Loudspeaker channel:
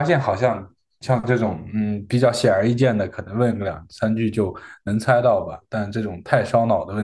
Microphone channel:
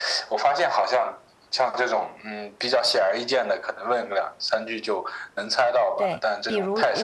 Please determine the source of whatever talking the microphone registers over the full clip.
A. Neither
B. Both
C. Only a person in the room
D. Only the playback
B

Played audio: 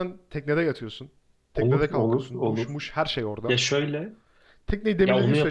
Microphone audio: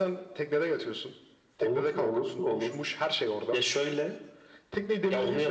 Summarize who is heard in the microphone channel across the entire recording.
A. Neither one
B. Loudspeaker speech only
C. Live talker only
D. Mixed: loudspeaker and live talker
B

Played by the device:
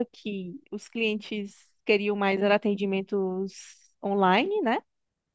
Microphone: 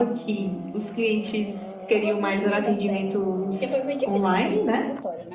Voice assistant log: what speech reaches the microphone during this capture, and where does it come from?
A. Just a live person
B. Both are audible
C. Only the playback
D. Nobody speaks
B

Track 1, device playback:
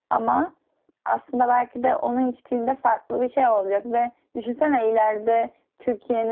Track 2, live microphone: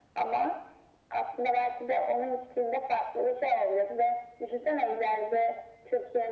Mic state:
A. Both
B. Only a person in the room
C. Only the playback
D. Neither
C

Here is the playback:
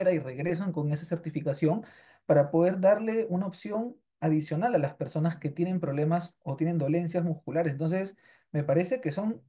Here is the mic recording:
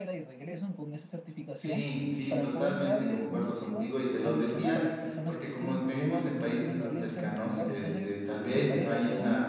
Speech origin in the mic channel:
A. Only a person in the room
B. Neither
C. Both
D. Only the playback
C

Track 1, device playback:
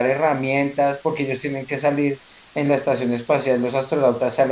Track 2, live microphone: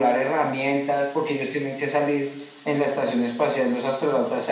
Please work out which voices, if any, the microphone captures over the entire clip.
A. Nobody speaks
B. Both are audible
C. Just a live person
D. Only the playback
D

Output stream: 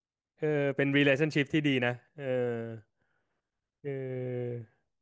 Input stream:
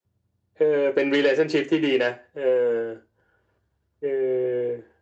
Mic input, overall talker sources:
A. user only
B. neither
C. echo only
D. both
C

